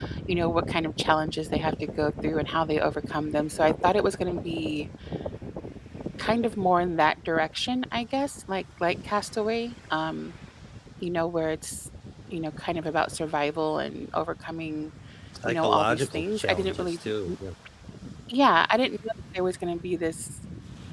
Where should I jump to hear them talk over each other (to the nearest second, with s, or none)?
15 s